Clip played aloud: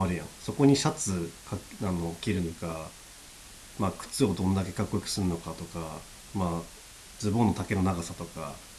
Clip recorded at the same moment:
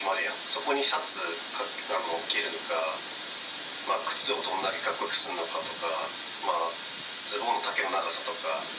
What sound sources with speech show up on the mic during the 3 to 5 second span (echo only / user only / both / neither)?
echo only